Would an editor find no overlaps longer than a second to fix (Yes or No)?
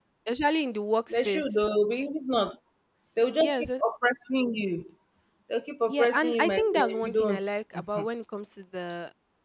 No